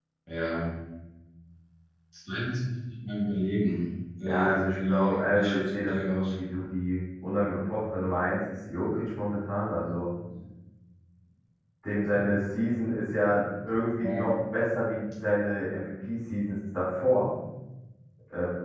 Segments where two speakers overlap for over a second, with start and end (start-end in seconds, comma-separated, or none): 4.2-6.4